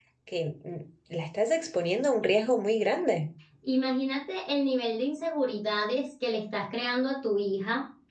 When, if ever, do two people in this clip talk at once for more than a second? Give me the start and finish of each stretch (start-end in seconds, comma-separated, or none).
none